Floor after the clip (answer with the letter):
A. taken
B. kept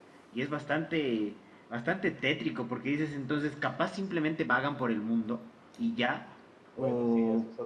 A